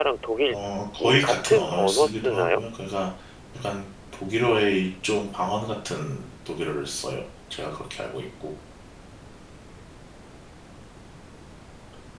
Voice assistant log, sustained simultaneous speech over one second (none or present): present